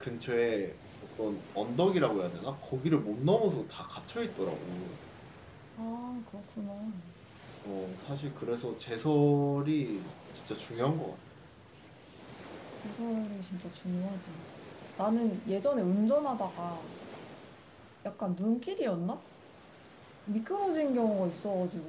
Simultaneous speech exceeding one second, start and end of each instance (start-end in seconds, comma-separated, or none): none